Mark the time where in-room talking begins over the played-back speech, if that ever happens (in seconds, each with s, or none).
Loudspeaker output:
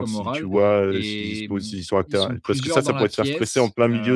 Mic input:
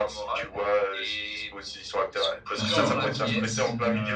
2.5 s